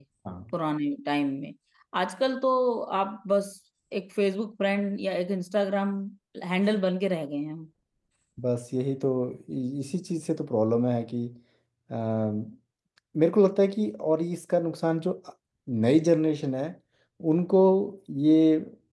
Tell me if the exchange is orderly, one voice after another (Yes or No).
Yes